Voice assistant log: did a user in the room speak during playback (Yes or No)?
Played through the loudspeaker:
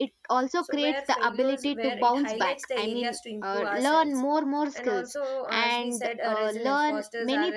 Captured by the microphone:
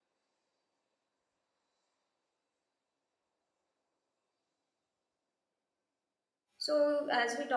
Yes